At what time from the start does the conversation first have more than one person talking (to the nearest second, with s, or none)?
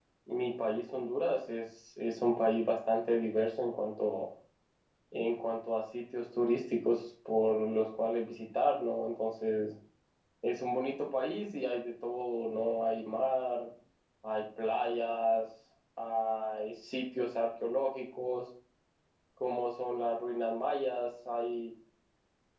none